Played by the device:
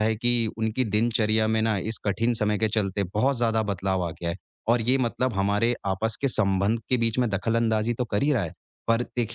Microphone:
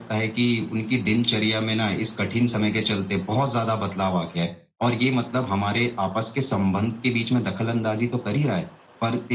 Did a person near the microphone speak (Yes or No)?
No